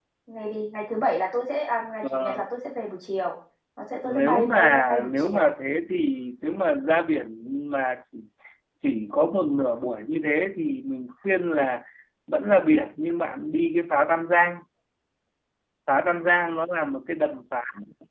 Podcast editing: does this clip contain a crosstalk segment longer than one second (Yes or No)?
Yes